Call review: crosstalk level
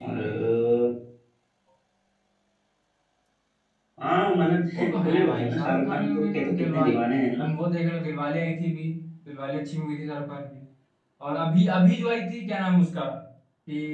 present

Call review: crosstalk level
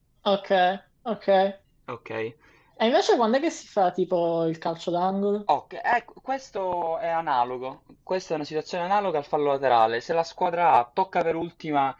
none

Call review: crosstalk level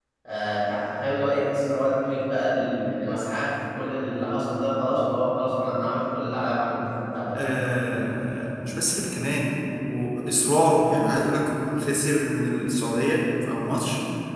none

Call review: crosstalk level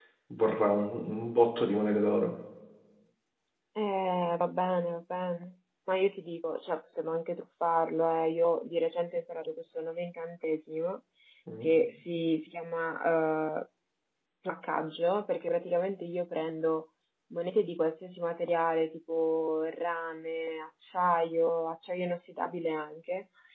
none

